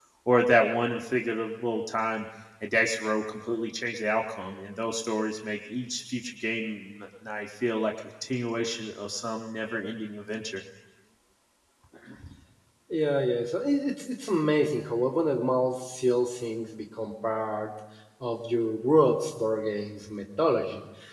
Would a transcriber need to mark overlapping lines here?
No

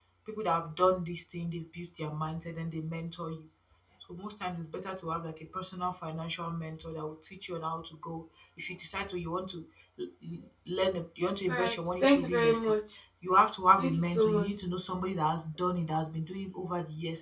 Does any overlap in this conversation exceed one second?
Yes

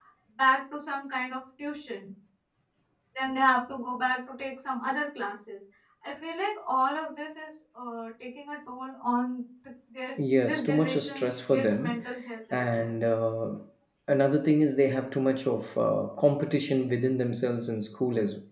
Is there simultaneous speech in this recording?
Yes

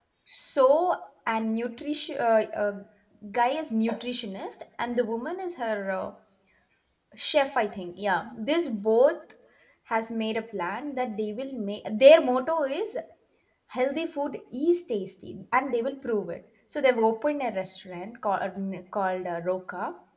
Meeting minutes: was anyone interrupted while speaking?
No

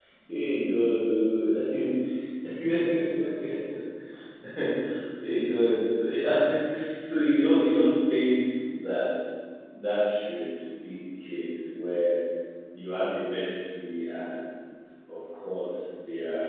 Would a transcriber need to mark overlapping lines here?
No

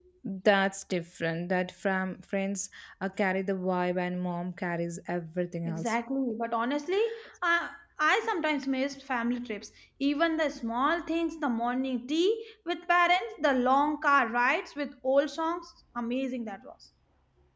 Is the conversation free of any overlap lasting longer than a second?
Yes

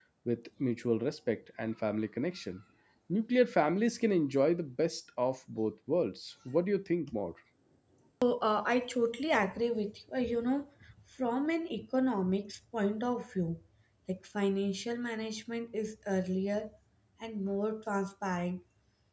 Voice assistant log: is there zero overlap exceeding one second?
Yes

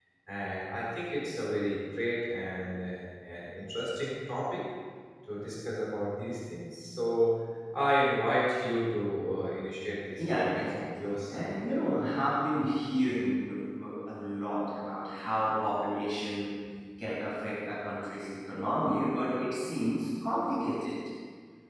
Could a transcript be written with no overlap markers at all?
No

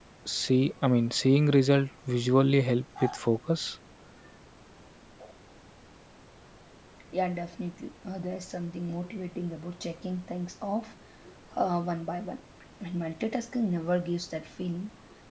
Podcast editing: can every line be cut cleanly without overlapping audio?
Yes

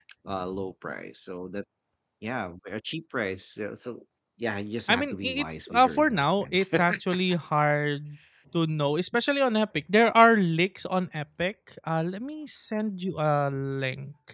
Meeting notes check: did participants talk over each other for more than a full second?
Yes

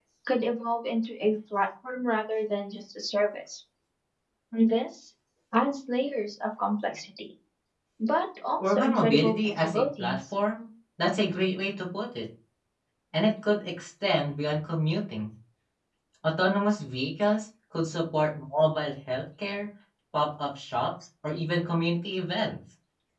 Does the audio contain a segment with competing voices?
Yes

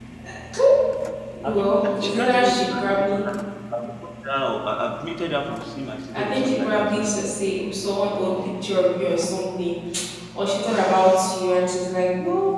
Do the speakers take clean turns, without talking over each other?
No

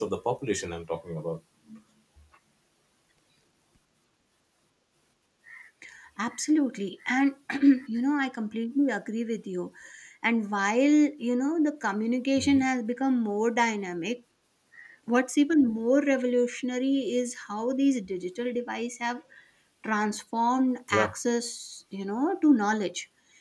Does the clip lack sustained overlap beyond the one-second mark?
Yes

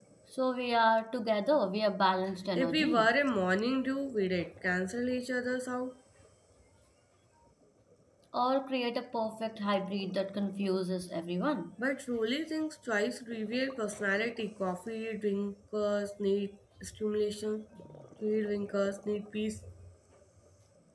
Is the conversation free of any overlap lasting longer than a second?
Yes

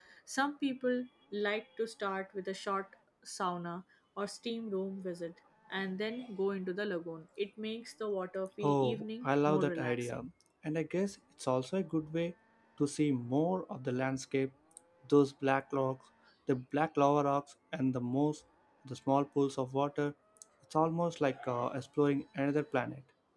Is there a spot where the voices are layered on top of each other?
Yes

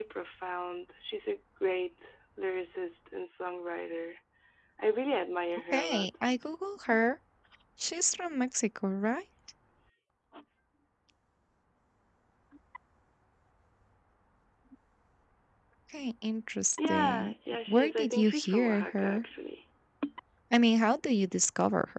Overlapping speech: Yes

